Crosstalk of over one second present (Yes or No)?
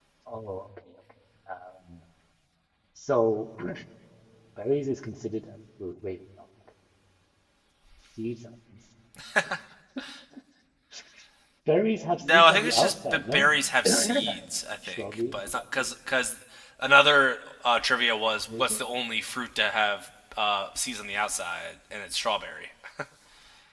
Yes